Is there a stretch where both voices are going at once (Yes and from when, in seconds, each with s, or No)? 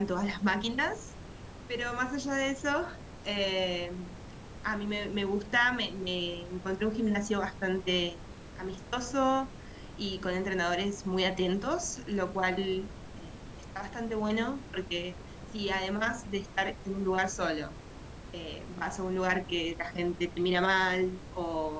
No